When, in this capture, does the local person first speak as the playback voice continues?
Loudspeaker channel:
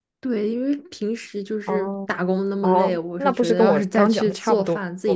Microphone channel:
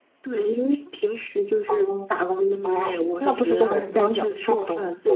none

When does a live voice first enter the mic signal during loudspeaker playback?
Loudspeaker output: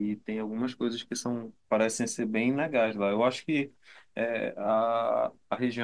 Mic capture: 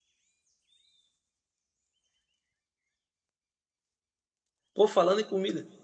5 s

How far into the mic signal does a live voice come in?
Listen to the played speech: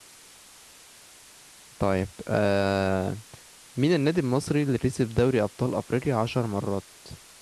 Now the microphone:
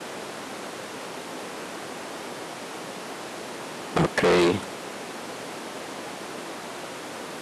4 s

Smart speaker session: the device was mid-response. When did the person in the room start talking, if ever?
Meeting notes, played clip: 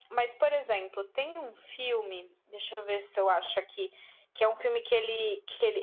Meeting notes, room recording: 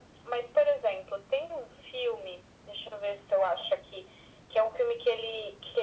none

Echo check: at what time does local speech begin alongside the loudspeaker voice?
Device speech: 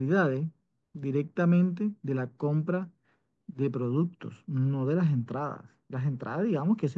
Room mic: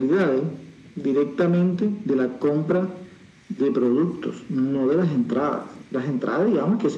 none

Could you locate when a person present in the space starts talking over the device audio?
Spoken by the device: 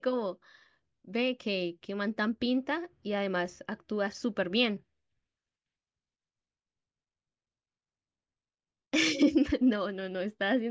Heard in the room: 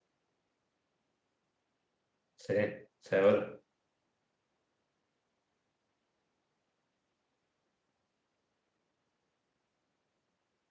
2 s

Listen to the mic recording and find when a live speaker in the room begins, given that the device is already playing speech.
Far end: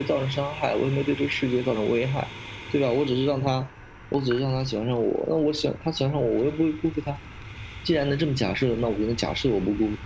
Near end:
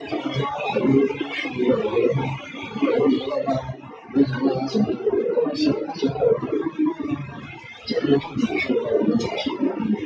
none

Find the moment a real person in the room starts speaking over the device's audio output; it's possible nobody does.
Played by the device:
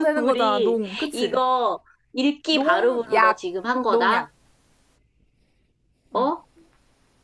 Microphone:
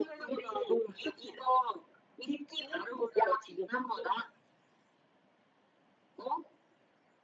none

